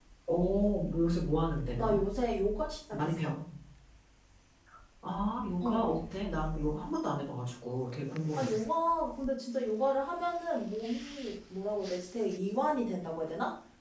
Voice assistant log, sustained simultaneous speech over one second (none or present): none